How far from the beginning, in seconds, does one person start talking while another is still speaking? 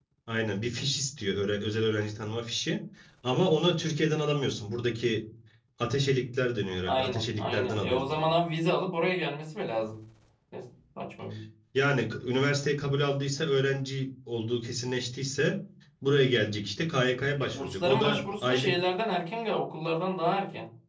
6.9 s

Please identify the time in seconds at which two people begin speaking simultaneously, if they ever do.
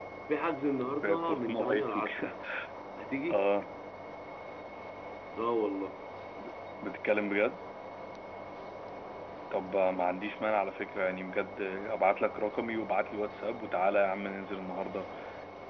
1.0 s

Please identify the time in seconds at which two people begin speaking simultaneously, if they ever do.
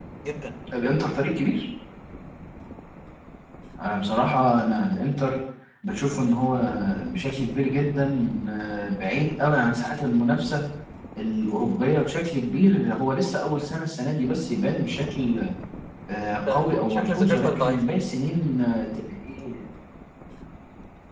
16.5 s

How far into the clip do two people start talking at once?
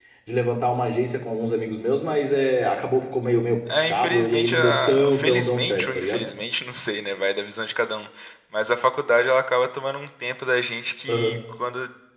3.7 s

